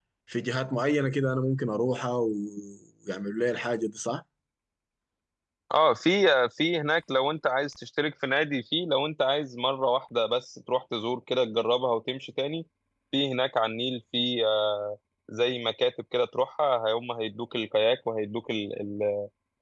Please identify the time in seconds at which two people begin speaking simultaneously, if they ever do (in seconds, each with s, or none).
none